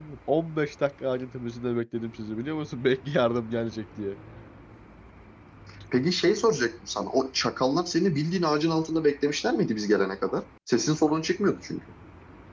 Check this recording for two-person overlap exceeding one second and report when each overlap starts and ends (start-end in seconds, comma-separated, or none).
none